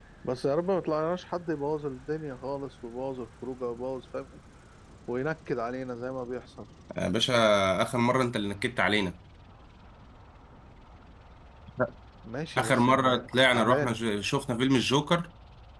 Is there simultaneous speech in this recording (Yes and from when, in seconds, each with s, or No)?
Yes, from 12.6 s